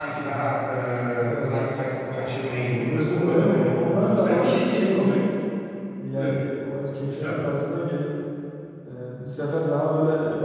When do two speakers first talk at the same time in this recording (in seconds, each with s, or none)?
1.3 s